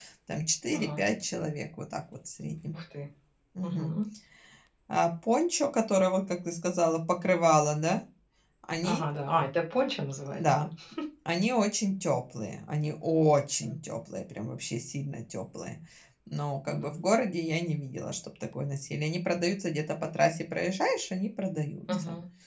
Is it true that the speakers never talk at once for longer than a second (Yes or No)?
Yes